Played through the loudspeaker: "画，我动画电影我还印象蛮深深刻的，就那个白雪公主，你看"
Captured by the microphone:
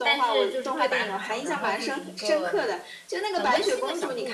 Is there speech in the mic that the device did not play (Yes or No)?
Yes